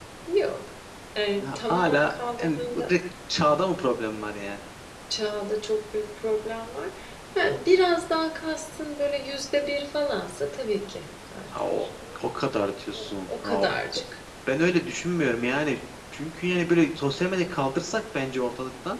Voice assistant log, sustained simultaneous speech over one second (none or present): present